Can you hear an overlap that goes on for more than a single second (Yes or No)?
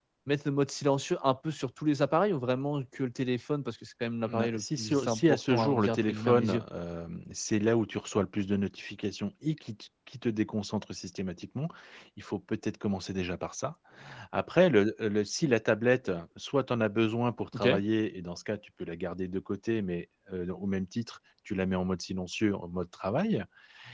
Yes